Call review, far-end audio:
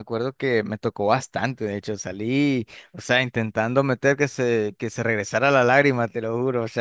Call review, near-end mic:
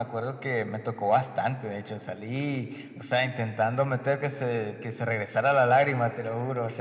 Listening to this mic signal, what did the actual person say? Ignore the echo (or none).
none